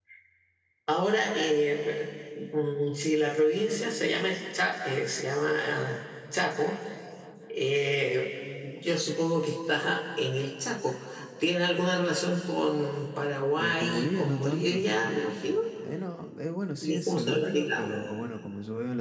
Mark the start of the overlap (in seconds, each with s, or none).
13.6 s